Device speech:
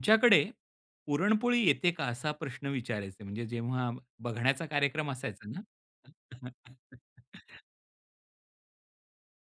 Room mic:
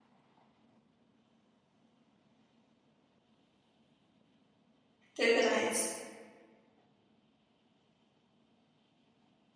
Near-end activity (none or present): present